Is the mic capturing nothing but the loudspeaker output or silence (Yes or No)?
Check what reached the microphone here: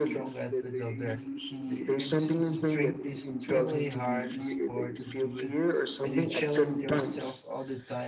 No